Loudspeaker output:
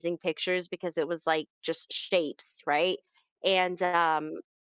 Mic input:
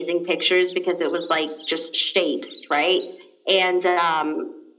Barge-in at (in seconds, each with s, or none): none